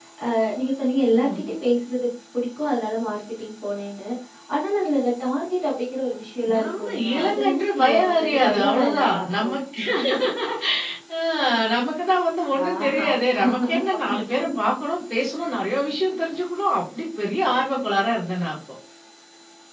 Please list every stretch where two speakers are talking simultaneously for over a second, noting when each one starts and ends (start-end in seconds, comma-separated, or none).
6.6-9.5